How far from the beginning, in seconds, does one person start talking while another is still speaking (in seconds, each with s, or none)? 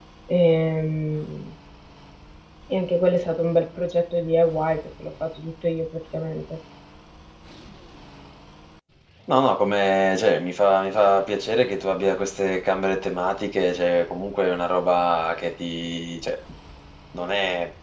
none